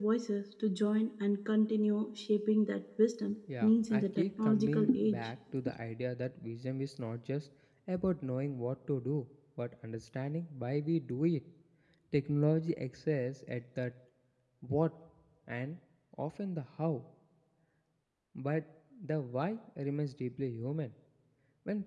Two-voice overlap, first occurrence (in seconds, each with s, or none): 3.5 s